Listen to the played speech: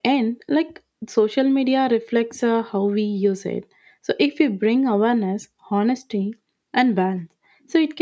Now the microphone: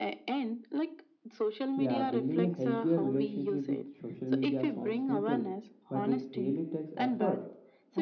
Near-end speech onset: 2 s

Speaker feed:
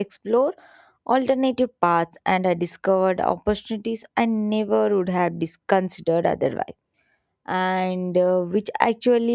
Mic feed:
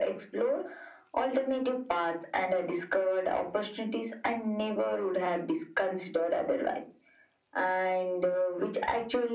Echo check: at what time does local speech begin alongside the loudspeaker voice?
none

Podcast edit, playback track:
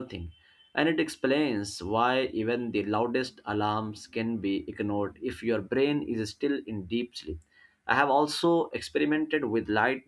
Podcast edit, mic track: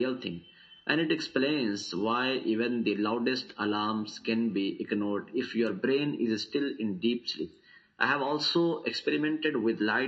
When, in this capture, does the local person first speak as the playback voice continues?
none

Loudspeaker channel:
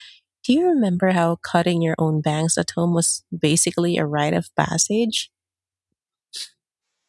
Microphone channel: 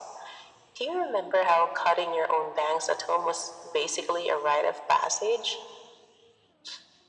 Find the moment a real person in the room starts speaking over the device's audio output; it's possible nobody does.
none

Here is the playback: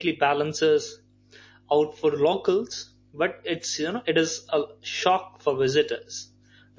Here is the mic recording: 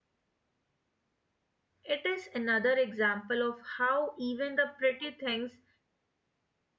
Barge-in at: 2 s

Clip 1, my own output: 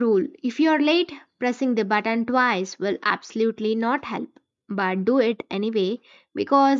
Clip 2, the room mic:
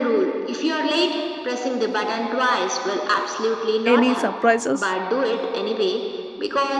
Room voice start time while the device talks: 4 s

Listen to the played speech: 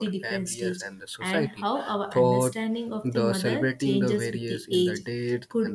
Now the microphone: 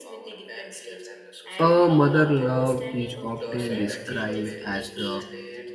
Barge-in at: 2 s

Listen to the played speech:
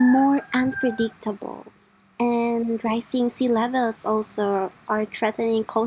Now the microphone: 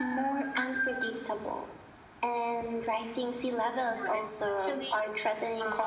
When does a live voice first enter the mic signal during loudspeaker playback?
4 s

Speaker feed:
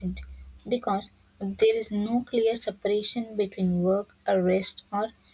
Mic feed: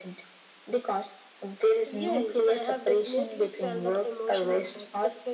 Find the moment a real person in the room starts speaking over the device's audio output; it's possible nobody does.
2 s

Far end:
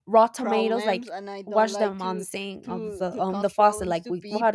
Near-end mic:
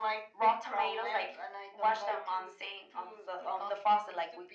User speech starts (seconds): none

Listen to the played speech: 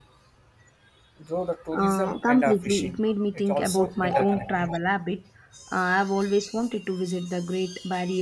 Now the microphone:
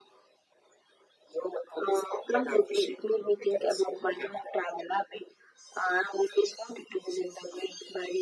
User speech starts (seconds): none

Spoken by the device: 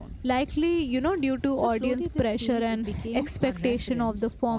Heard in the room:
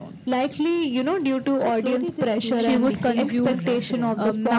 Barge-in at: 3 s

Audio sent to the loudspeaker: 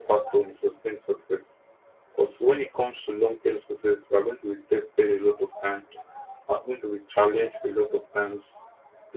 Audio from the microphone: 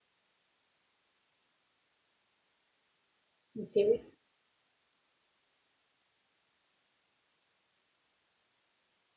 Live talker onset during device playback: 4 s

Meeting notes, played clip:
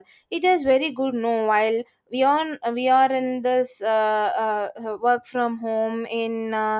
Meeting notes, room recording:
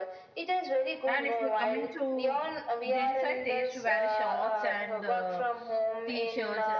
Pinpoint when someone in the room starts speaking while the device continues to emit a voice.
1 s

